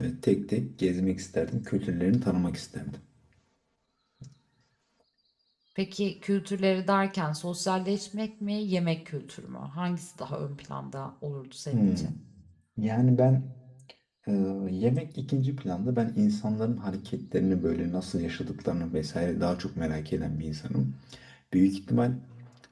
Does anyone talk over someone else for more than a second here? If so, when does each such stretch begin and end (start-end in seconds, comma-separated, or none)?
none